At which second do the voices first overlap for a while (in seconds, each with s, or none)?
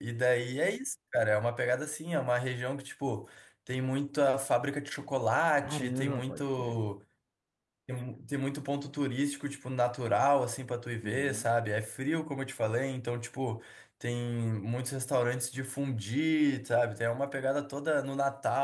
5.6 s